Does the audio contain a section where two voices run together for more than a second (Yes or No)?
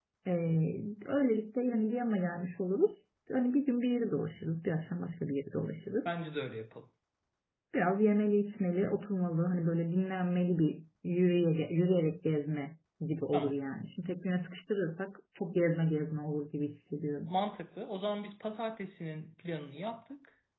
No